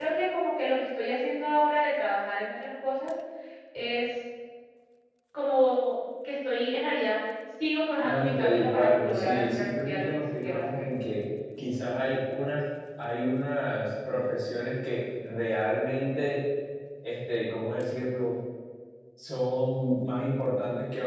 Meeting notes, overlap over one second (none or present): present